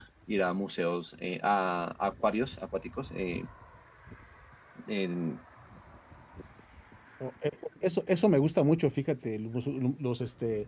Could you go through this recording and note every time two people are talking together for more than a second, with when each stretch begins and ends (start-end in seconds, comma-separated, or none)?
none